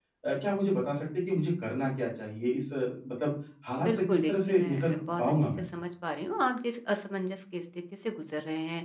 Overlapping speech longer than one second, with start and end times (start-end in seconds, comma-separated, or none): 3.8-5.6